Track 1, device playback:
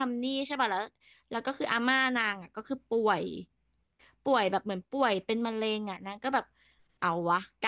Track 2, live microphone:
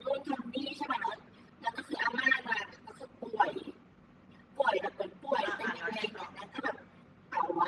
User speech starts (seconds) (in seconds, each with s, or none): 5.4 s